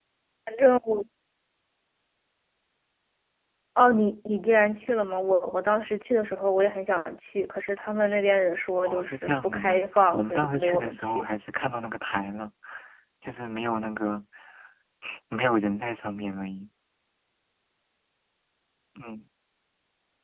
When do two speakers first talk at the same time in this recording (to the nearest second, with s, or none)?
9 s